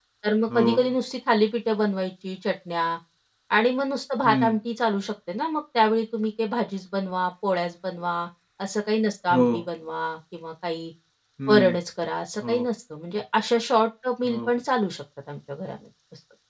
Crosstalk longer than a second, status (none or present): none